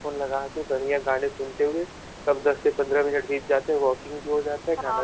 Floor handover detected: Yes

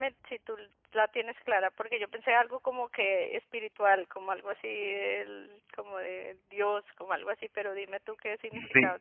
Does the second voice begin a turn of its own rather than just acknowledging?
Yes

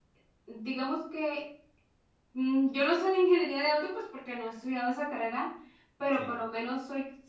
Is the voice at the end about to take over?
No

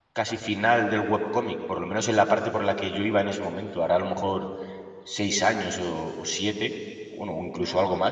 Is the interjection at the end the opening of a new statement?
No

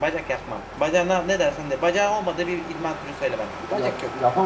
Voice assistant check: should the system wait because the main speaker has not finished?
No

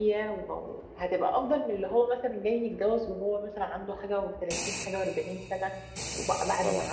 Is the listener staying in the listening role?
Yes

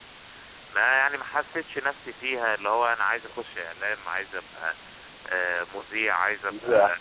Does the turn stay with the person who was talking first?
Yes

